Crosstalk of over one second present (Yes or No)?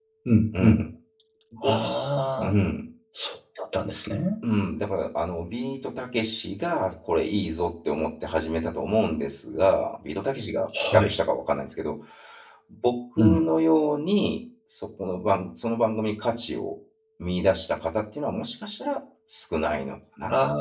No